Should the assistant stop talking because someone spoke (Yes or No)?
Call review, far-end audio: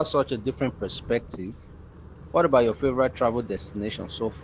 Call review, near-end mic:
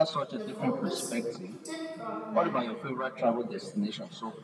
Yes